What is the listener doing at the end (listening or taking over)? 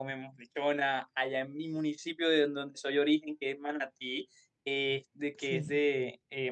listening